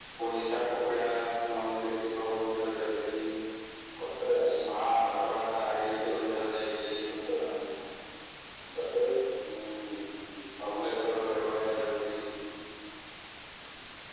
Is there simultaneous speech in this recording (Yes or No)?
No